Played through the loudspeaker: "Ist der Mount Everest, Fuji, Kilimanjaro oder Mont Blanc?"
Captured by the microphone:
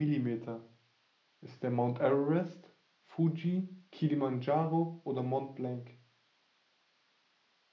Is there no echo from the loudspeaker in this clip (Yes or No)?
No